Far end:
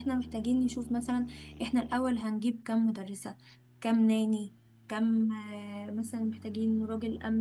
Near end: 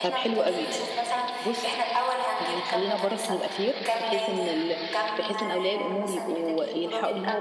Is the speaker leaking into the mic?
Yes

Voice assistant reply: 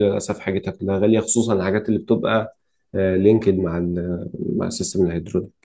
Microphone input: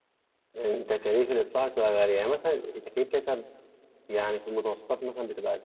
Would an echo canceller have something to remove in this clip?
No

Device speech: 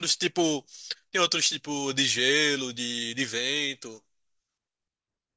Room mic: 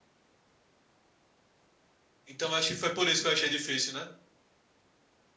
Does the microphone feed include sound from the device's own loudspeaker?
No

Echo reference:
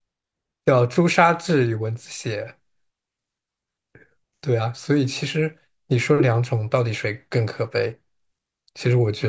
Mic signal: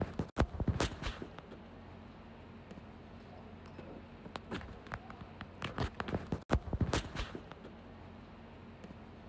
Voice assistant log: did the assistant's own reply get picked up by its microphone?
No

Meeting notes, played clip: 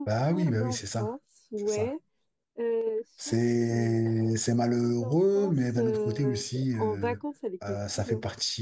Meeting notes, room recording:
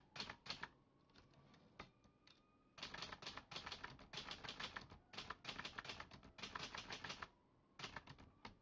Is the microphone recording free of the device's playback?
Yes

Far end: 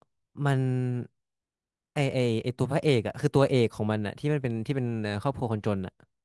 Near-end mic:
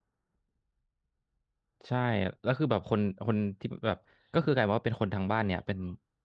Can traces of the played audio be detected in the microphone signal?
No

